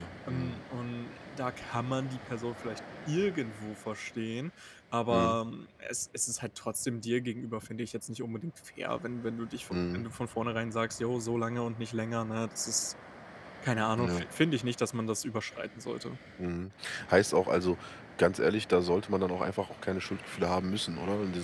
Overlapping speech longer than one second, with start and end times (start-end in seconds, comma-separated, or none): none